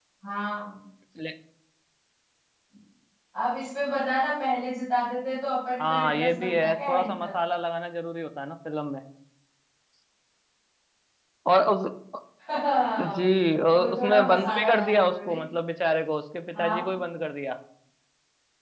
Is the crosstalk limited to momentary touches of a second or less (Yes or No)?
No